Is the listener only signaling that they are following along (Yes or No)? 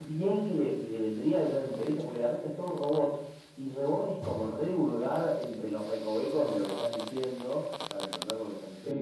No